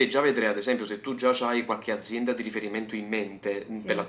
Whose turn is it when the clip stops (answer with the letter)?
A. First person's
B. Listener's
A